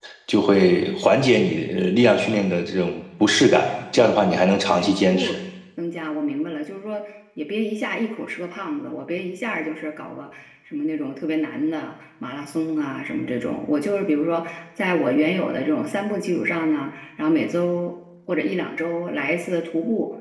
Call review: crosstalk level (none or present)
present